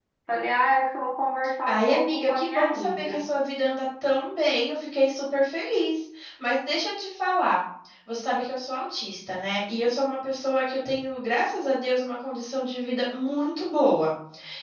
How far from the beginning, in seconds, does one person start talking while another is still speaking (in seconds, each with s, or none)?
1.7 s